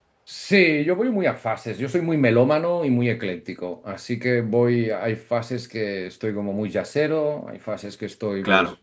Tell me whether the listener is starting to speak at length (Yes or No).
No